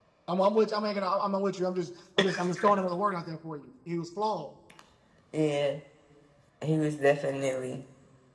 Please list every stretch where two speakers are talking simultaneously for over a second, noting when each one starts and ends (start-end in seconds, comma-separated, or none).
none